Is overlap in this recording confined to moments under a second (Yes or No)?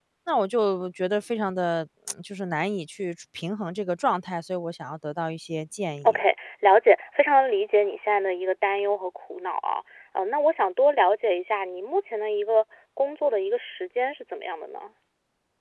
Yes